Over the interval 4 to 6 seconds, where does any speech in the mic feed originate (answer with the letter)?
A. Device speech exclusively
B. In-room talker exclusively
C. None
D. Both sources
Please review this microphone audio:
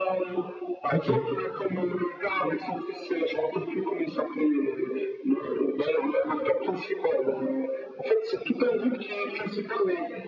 A